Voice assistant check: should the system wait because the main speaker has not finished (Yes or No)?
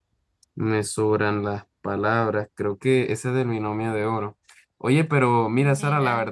Yes